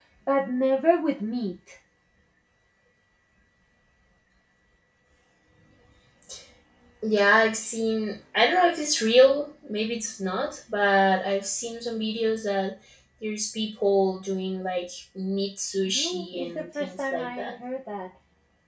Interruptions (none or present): present